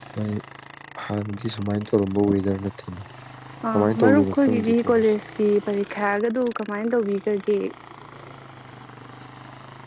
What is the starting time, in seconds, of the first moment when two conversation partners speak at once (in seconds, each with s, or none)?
3.7 s